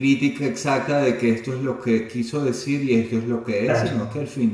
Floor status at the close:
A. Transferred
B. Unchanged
B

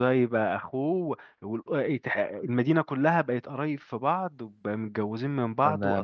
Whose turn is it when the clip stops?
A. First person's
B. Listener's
B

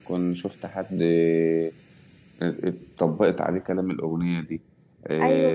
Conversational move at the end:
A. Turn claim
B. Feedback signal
A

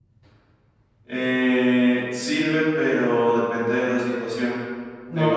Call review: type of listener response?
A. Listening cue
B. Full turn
B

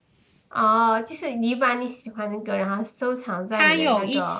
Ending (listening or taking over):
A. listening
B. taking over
B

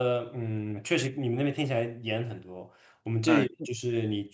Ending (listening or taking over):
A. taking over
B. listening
B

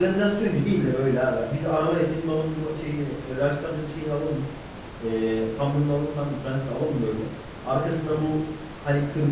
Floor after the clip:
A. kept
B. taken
A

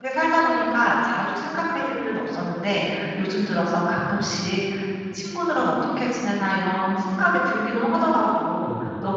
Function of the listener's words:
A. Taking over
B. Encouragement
B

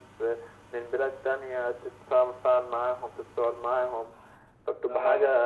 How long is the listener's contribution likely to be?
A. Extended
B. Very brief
B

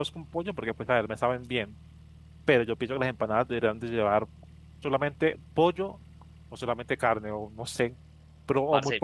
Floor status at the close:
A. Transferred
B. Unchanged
A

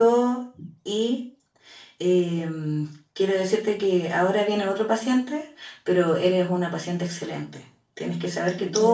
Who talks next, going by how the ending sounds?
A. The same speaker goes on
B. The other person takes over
A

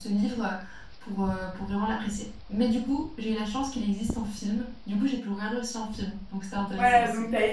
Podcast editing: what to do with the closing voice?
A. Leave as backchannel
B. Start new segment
B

